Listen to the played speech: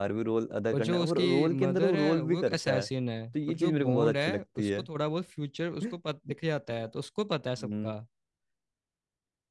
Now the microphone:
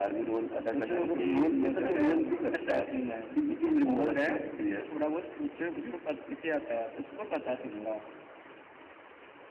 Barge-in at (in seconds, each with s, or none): none